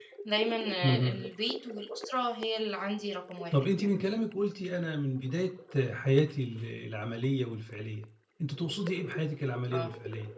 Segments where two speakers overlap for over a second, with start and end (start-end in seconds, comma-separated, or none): none